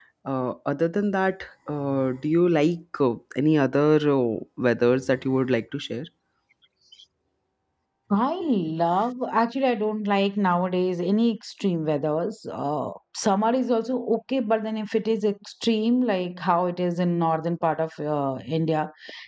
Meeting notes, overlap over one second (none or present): none